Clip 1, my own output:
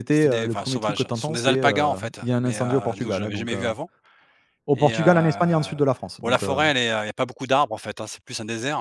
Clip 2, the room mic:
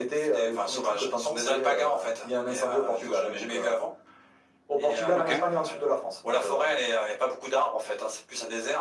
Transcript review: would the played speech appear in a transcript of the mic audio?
Yes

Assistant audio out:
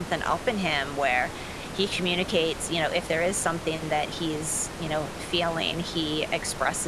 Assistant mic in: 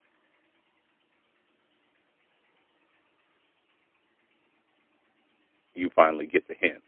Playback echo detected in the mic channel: No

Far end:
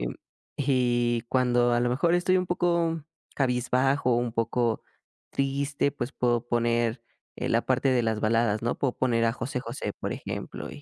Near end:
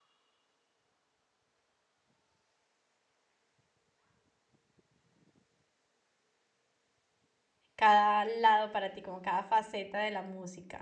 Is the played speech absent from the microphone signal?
Yes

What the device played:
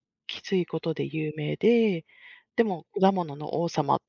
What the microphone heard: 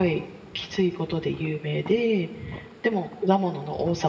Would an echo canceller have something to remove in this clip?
Yes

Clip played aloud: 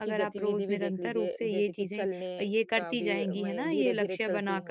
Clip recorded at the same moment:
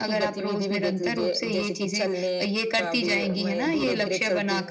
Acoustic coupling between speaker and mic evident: Yes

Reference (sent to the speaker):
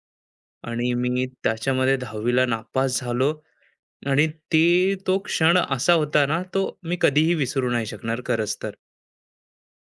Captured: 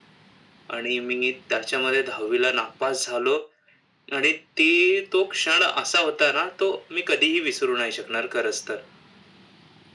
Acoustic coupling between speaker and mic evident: Yes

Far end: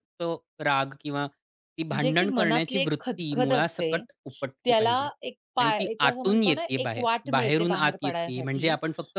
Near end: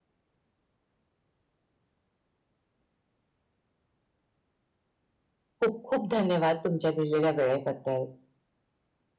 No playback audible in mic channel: Yes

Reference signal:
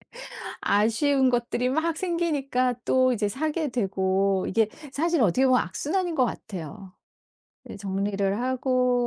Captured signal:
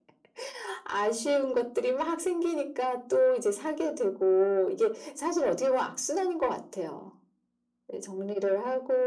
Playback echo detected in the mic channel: Yes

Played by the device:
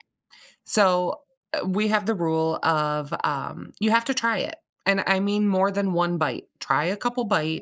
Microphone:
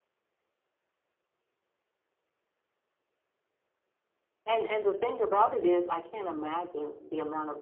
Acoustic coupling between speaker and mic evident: No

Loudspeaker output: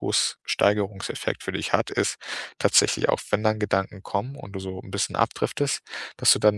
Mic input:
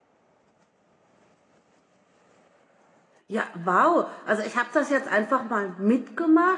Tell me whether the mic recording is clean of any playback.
Yes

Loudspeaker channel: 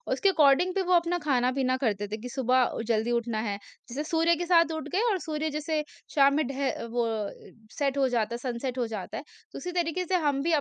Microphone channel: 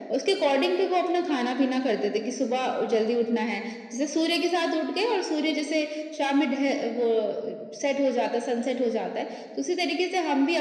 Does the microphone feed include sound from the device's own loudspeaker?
Yes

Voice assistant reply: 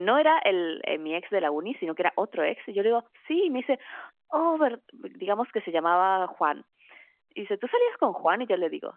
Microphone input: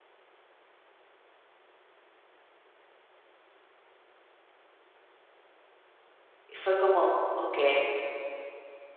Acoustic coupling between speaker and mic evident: No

